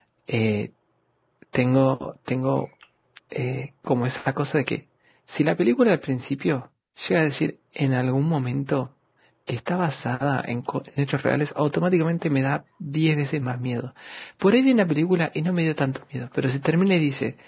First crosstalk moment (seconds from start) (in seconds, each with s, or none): none